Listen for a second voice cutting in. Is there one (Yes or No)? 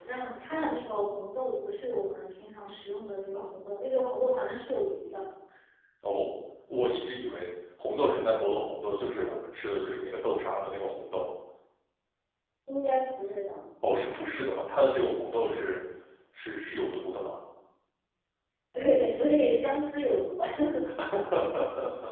No